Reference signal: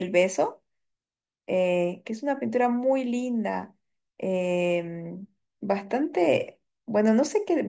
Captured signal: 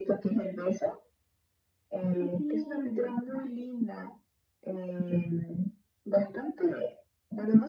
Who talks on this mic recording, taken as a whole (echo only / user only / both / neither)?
both